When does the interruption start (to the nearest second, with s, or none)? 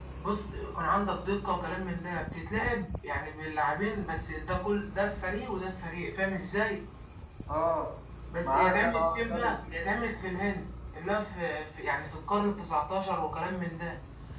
8 s